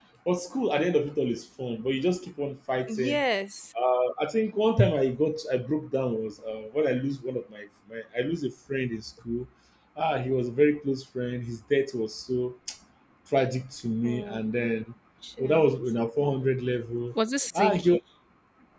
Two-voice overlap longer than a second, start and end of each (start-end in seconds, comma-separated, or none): none